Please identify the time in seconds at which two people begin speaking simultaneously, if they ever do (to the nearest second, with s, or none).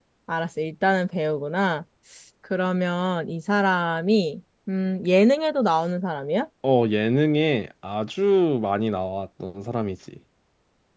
none